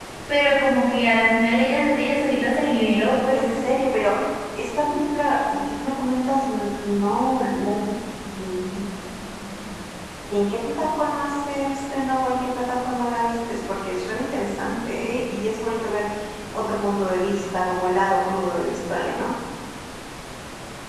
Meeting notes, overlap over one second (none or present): none